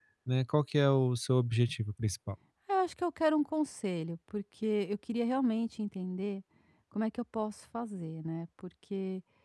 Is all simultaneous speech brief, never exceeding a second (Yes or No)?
Yes